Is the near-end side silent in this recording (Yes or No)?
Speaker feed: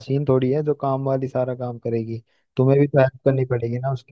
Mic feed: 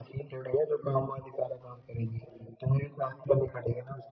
Yes